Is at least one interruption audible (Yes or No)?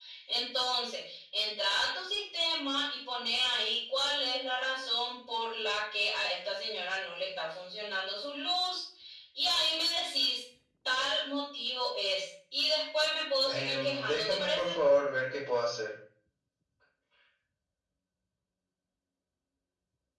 Yes